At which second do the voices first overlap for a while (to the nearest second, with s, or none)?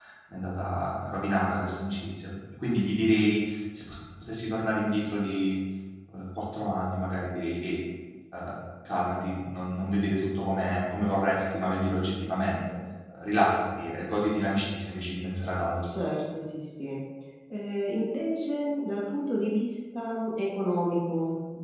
none